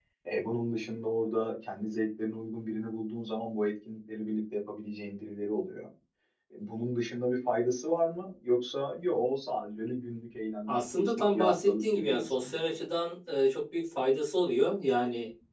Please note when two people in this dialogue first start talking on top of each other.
10.7 s

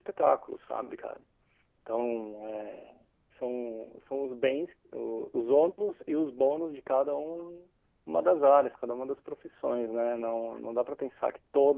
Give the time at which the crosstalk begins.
none

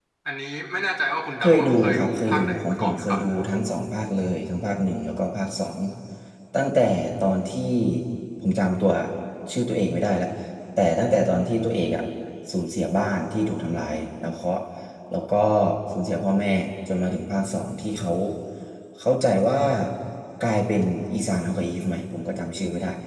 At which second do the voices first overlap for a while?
1.4 s

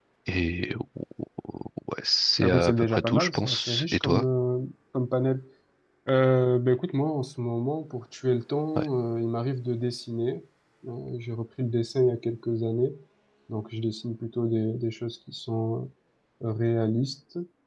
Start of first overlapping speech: 2.4 s

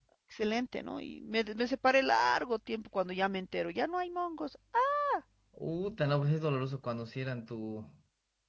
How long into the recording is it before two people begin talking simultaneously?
none

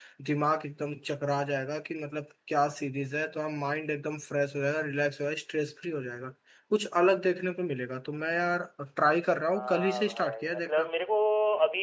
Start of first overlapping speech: 9.5 s

